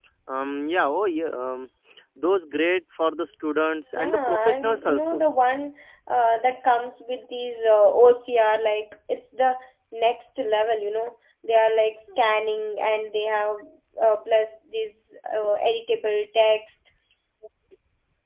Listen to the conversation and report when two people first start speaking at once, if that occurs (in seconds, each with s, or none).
4.0 s